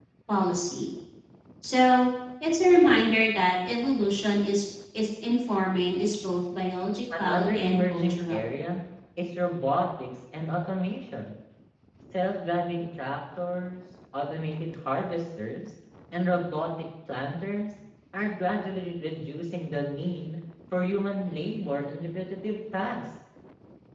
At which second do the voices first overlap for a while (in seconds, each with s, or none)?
7.1 s